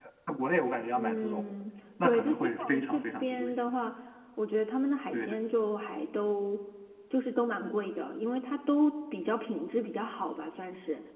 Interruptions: present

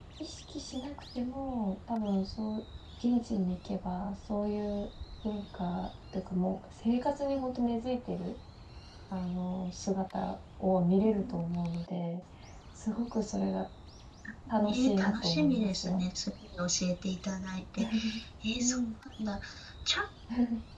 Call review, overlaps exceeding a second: present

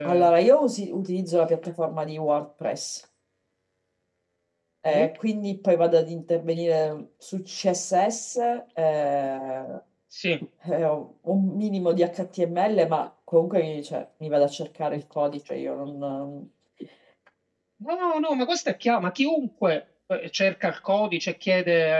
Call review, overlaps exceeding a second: none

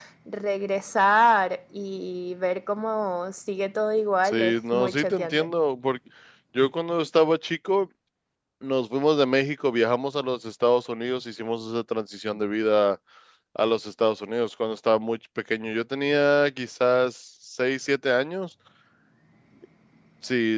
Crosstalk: present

